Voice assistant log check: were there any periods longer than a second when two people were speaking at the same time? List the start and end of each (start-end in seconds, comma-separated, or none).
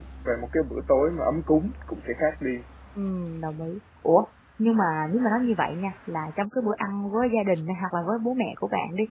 none